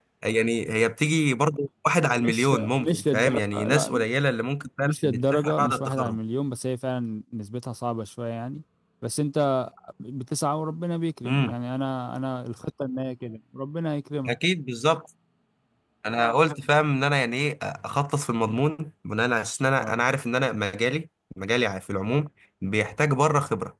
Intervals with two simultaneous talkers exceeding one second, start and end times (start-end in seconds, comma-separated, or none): 2.2-4.0, 4.8-6.2